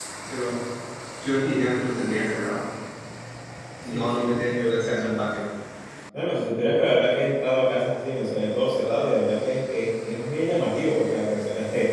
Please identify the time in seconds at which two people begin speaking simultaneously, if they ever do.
4 s

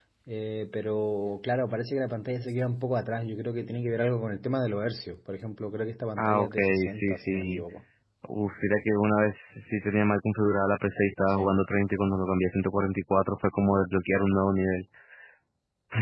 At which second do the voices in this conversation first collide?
6 s

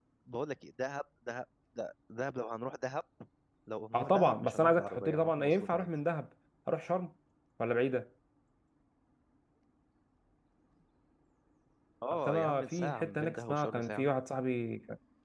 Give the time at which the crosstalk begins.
4 s

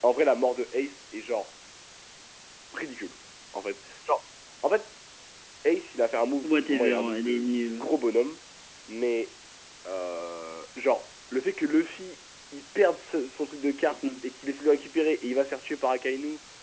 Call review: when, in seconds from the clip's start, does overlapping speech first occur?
6 s

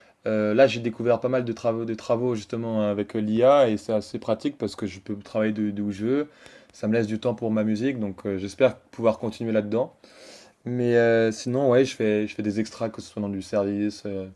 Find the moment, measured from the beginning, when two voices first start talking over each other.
none

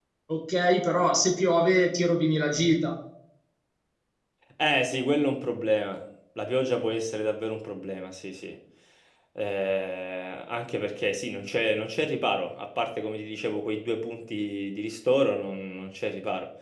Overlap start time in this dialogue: none

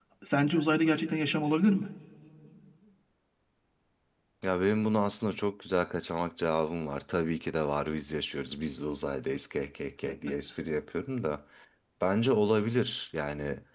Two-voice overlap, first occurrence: none

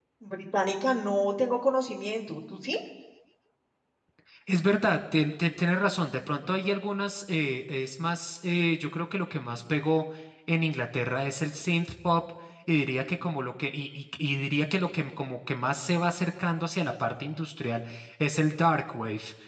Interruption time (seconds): none

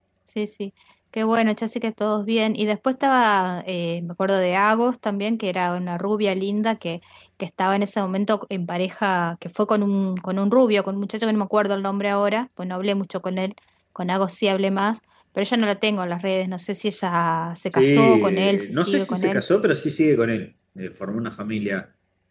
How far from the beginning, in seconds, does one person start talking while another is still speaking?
18 s

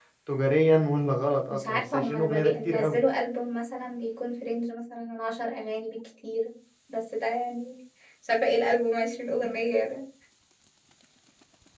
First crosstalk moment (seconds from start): 2 s

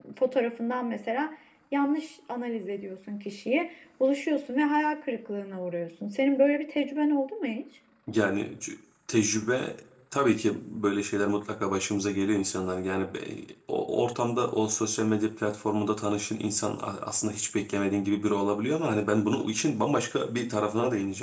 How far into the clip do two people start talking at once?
none

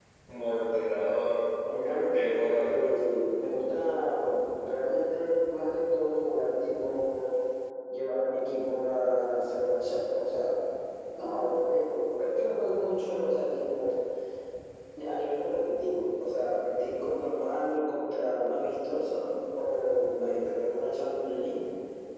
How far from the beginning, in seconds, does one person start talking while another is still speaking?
2 s

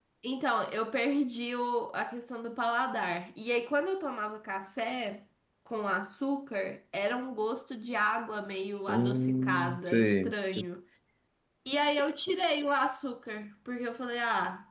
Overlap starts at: 9 s

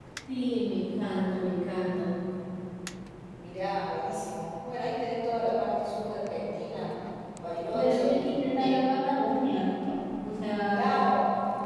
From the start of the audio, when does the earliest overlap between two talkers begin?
8 s

